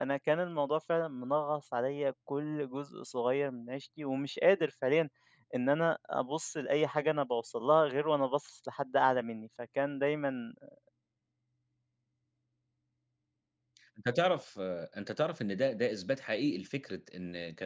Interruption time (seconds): none

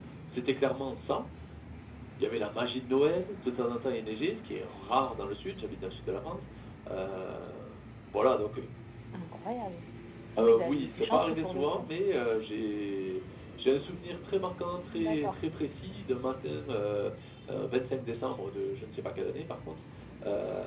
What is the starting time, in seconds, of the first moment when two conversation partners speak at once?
10.4 s

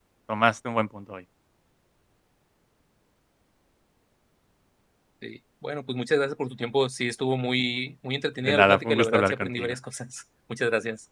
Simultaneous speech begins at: 8.4 s

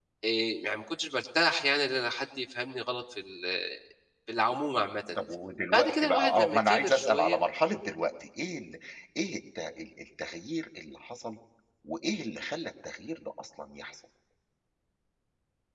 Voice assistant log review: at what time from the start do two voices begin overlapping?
5.7 s

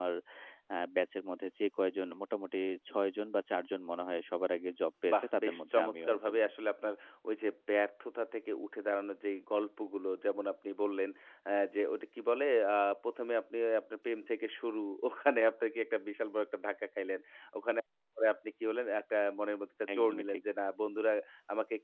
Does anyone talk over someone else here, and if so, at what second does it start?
5.1 s

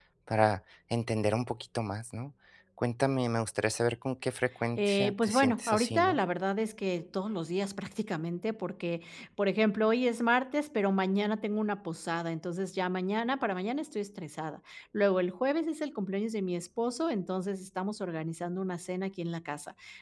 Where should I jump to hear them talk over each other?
4.8 s

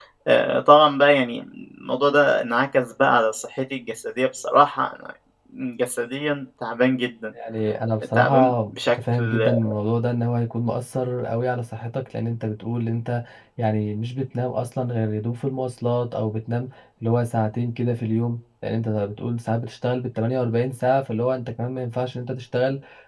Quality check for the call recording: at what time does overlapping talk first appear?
8.2 s

